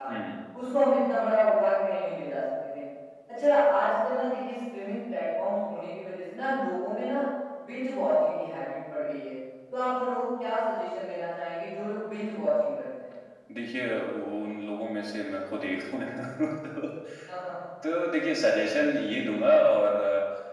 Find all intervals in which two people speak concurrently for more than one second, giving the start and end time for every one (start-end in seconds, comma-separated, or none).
none